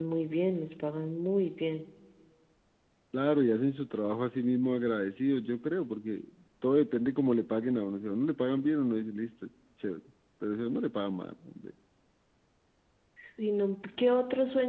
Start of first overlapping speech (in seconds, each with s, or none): none